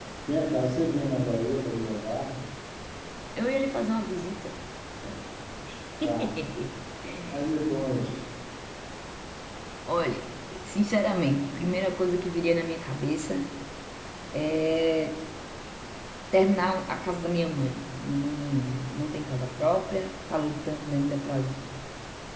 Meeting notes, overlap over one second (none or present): none